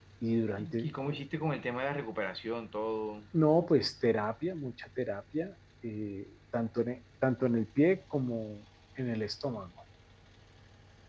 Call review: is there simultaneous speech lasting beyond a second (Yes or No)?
No